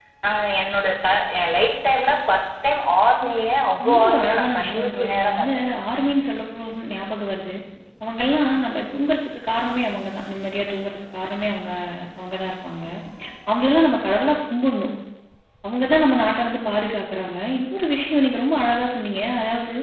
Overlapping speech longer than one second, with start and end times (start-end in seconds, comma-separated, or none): 3.8-5.5